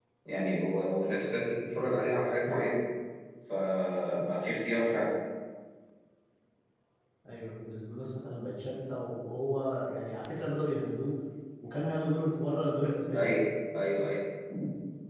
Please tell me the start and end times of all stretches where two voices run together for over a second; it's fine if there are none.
none

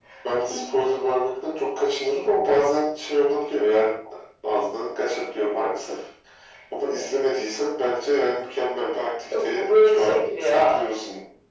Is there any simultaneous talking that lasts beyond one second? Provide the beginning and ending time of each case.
9.3-11.0

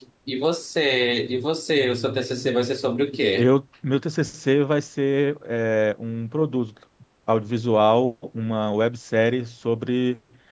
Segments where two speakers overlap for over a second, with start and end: none

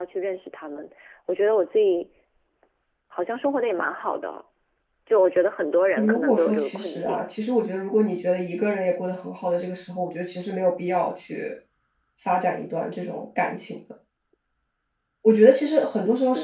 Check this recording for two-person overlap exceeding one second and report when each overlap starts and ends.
6.0-7.2

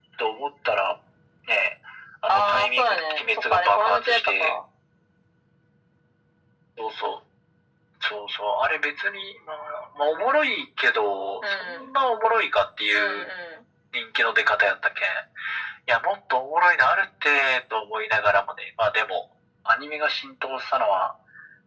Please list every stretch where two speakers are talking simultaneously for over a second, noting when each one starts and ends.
2.3-4.5

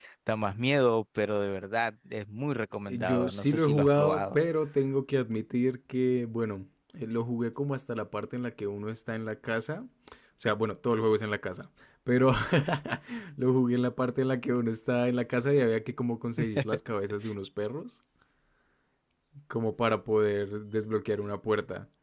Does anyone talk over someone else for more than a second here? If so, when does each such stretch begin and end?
2.9-4.4

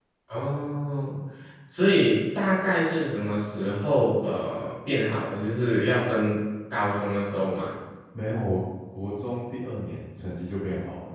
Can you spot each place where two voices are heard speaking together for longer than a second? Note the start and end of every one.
none

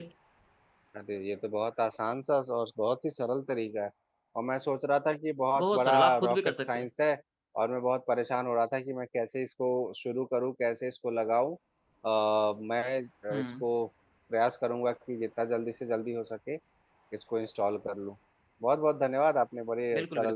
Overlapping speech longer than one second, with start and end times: 5.6-6.8

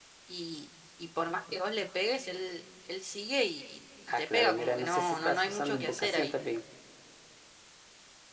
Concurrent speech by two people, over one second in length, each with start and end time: 4.1-6.3

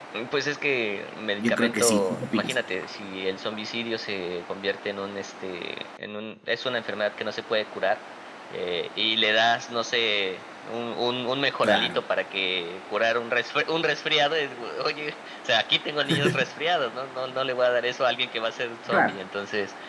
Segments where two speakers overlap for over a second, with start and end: 1.4-2.6

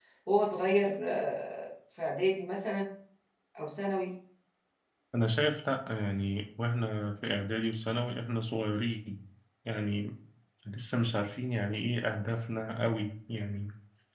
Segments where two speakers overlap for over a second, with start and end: none

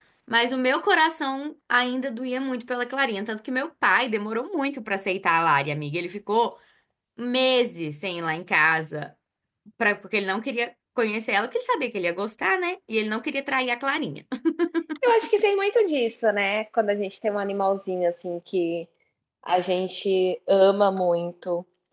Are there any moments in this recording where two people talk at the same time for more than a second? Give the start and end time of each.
none

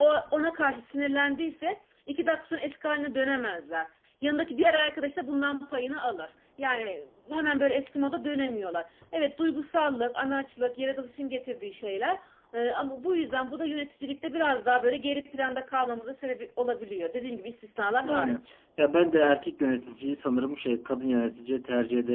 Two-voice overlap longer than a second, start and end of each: none

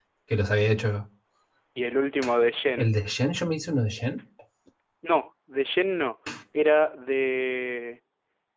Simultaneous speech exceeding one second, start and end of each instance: none

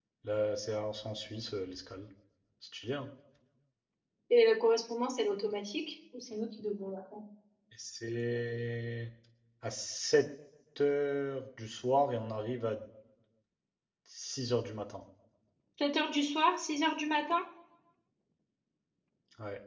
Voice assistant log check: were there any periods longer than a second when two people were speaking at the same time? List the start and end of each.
none

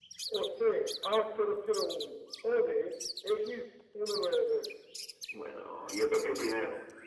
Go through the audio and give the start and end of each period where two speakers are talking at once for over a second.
none

